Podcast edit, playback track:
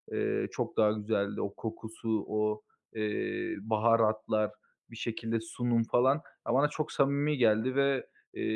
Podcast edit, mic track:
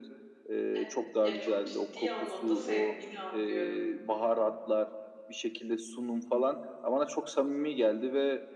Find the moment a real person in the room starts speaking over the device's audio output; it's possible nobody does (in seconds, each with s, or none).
0.7 s